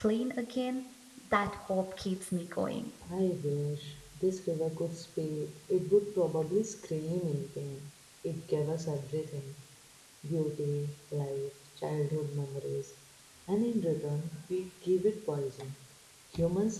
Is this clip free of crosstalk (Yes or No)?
Yes